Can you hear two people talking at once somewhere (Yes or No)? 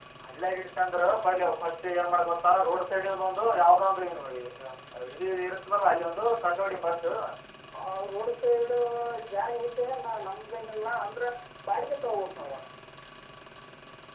No